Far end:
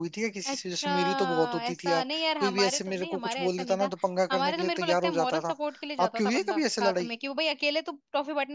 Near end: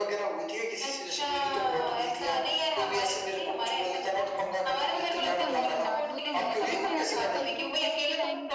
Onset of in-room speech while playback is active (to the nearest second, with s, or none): 5 s